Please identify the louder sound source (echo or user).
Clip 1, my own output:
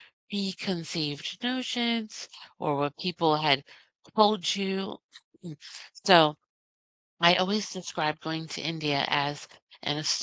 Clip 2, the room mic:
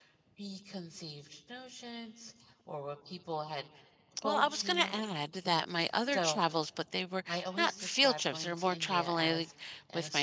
user